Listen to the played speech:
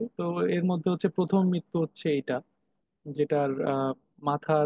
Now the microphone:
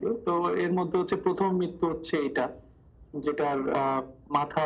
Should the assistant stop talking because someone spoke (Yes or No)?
No